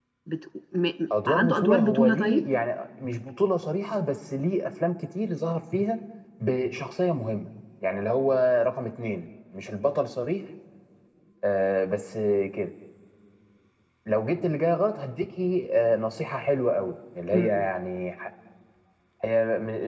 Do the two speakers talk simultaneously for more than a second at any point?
Yes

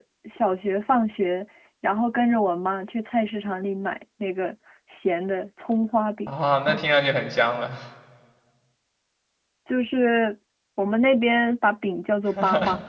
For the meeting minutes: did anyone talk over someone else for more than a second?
No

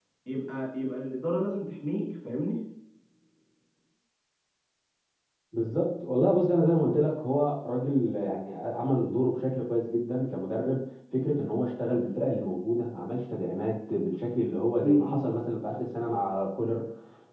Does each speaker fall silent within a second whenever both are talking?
Yes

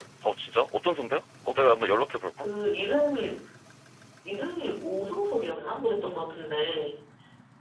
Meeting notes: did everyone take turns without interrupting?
Yes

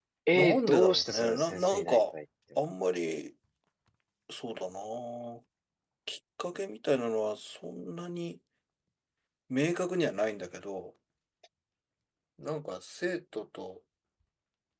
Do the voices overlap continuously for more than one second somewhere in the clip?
Yes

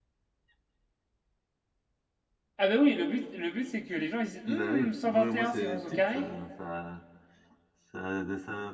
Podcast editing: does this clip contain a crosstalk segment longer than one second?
Yes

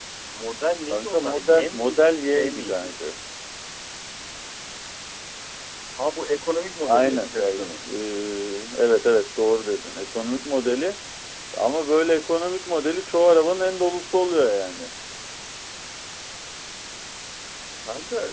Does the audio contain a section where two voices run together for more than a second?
Yes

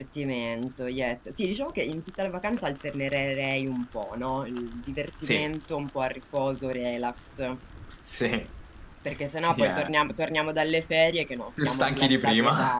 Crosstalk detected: Yes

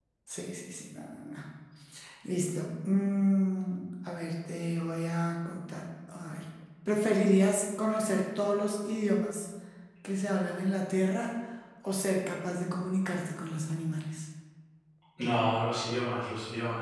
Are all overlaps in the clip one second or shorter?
Yes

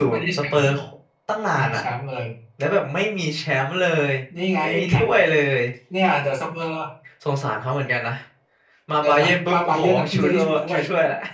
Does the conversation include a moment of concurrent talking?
Yes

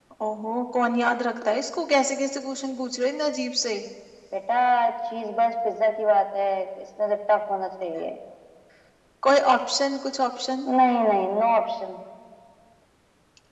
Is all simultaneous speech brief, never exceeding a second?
Yes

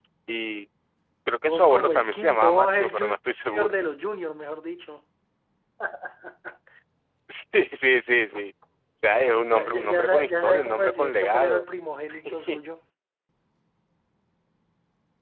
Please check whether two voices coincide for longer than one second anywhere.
Yes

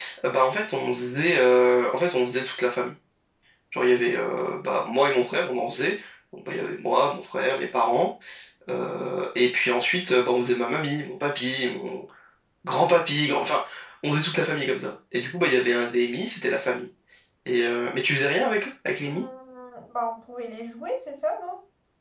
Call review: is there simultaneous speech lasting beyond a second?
No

